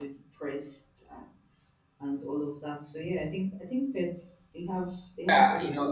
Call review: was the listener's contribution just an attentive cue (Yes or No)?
No